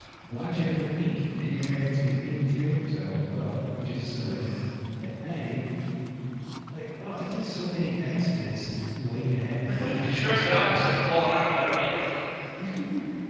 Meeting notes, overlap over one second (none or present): present